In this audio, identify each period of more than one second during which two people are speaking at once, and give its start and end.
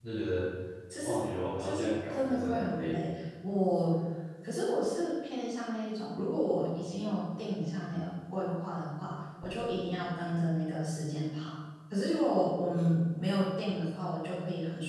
1.6-3.0

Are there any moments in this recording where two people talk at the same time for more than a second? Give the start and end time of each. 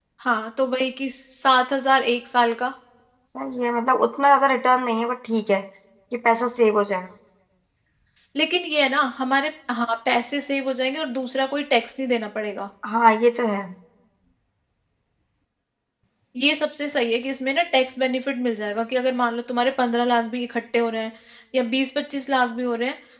none

